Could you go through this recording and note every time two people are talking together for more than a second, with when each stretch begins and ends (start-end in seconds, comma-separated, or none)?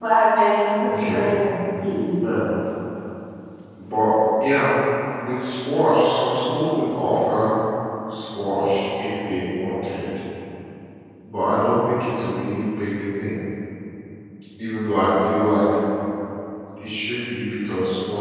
none